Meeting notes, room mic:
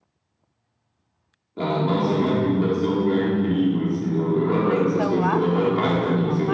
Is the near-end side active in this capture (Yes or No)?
Yes